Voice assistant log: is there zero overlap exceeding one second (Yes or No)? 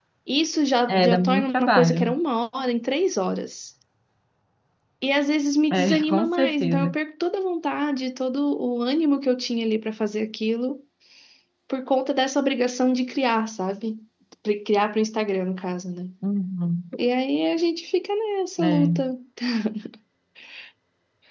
No